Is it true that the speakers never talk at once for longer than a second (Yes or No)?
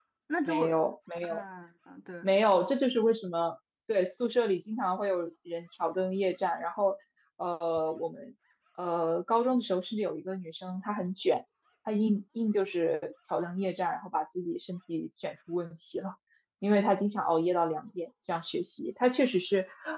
Yes